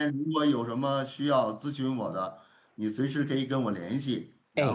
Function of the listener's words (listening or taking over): listening